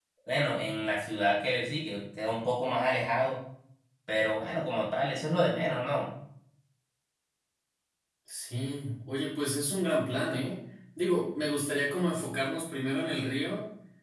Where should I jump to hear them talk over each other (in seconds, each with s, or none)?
none